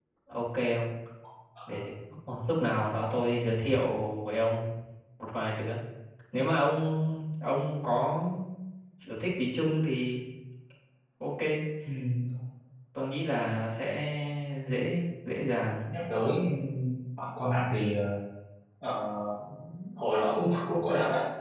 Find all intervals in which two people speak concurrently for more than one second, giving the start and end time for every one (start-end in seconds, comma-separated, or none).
none